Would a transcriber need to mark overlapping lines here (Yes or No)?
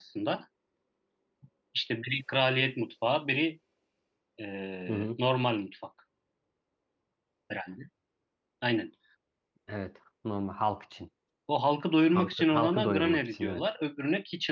Yes